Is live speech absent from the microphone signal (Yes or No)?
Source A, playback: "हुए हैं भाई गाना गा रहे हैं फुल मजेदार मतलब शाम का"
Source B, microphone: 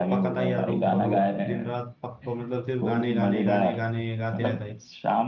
No